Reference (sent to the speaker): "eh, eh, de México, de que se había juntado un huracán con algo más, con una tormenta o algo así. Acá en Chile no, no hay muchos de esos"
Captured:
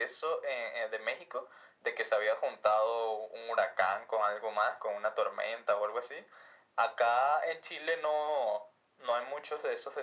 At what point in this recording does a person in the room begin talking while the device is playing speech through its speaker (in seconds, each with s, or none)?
none